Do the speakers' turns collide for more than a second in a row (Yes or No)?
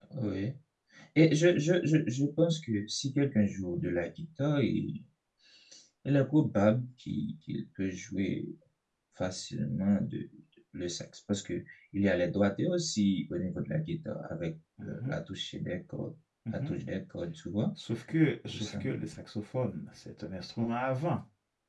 No